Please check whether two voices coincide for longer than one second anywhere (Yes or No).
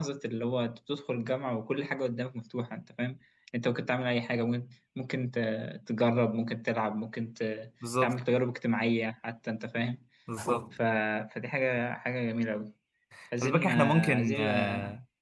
Yes